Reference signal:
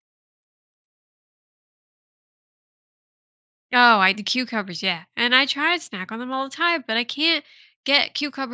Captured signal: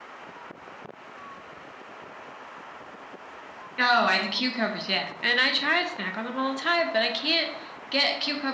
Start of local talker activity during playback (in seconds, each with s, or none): none